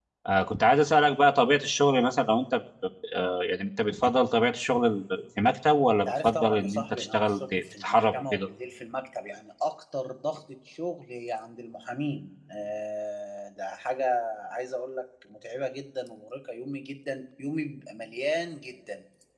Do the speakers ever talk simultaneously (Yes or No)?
Yes